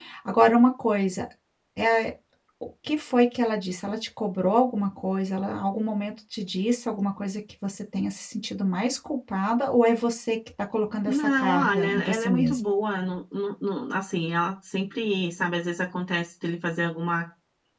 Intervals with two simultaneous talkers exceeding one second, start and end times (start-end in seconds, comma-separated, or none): 11.1-12.6